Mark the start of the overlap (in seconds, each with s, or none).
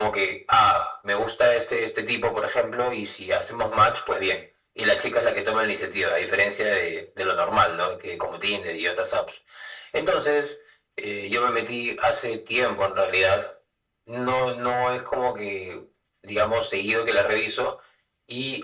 none